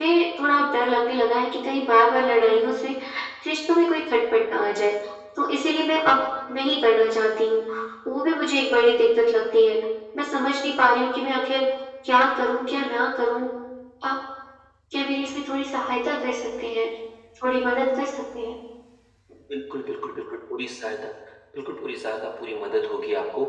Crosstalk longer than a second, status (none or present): none